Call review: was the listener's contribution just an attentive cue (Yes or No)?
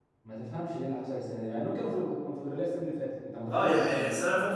No